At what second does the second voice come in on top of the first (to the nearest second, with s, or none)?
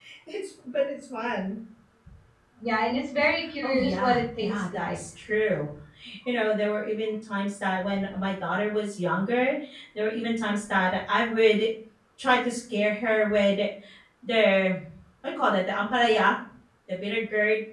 4 s